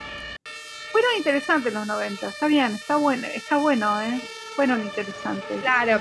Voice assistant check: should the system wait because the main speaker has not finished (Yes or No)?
No